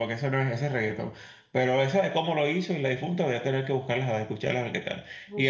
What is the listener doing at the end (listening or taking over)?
taking over